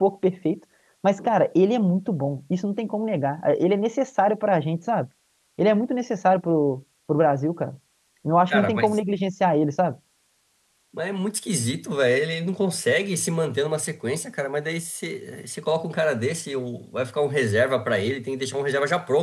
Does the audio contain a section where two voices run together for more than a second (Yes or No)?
No